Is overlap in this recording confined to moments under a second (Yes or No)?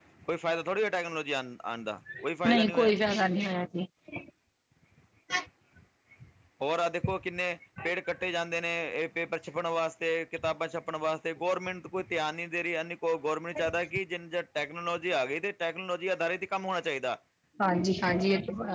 Yes